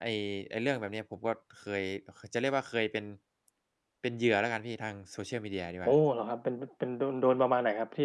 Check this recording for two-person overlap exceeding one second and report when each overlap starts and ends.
none

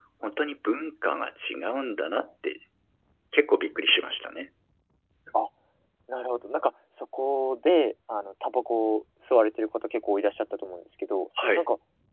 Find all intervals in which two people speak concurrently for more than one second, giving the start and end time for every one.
none

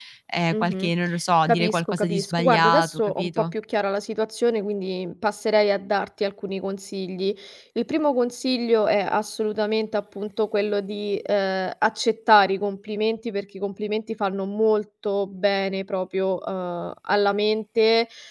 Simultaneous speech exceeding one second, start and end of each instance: 1.5-3.5

